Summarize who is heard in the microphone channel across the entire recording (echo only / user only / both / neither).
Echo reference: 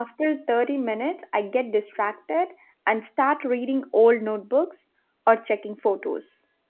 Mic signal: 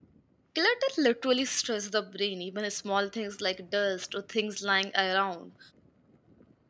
user only